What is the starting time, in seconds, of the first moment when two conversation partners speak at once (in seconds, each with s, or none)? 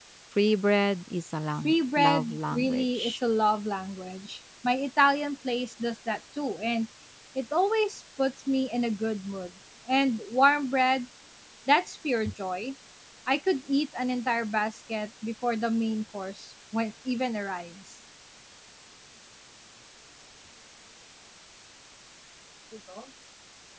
1.6 s